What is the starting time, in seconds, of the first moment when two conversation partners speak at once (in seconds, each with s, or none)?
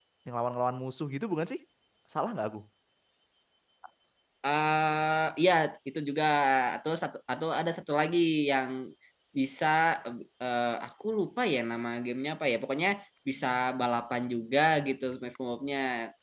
none